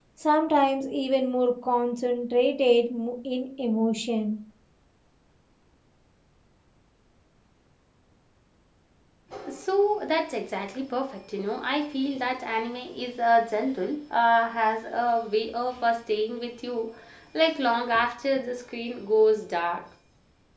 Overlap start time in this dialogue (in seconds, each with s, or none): none